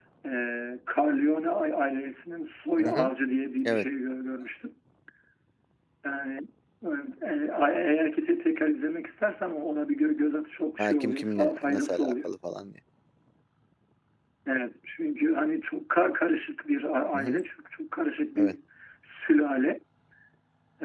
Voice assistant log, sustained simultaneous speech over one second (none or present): present